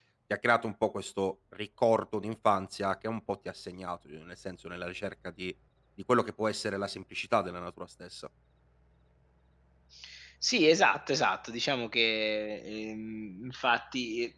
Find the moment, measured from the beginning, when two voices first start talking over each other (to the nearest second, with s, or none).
none